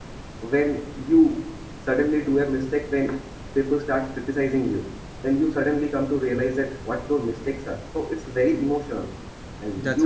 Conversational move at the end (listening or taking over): listening